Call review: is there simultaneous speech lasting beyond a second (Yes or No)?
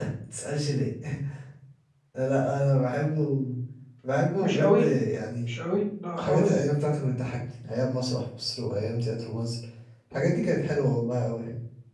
No